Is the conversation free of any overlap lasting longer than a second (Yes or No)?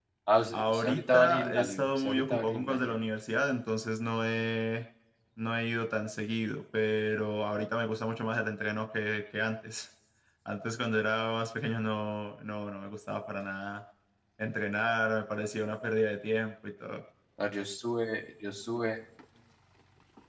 No